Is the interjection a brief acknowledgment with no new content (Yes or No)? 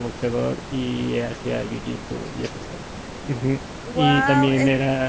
Yes